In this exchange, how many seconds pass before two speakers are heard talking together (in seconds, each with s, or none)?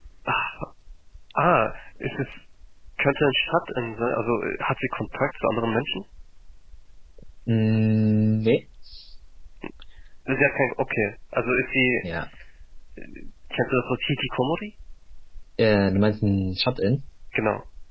none